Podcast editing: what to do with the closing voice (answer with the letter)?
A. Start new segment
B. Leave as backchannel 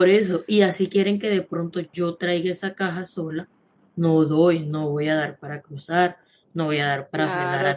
A